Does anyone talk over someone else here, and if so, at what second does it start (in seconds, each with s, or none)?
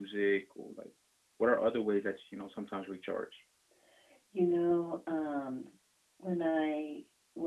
none